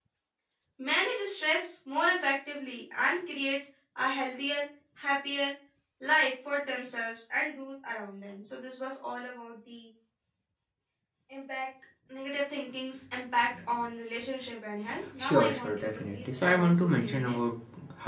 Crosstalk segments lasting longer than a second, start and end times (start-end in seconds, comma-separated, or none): 15.2-17.4